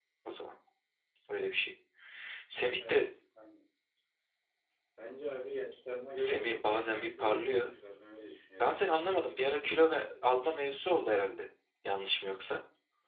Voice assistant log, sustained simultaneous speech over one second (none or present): present